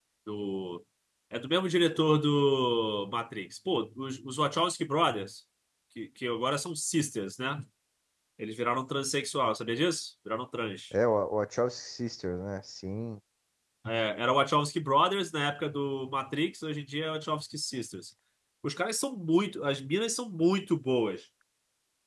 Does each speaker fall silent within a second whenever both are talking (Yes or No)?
Yes